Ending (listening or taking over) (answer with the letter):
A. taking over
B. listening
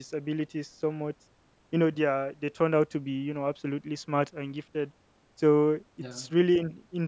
B